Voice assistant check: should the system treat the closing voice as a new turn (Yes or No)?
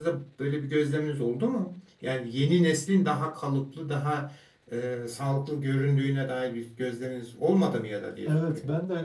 Yes